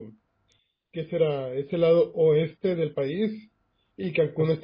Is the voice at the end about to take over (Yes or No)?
No